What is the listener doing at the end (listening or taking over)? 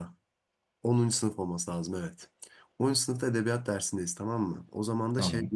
listening